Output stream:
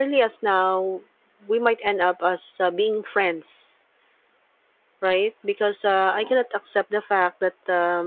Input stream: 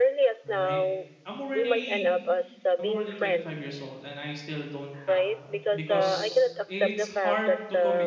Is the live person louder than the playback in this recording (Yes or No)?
No